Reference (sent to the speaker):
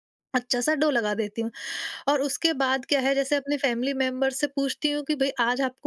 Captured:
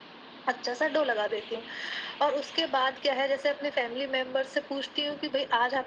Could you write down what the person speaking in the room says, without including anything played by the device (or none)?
none